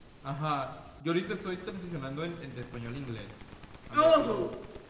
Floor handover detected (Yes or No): No